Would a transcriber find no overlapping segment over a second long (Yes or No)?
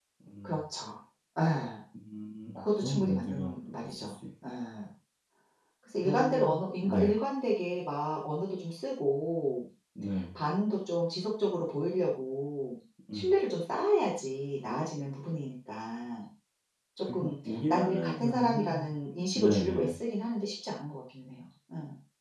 No